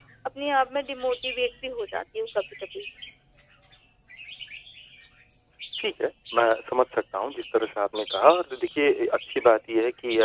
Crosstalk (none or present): none